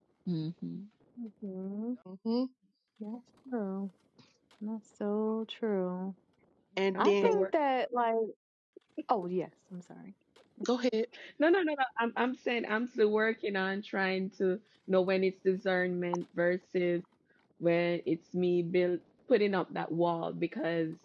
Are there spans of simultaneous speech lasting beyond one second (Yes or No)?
No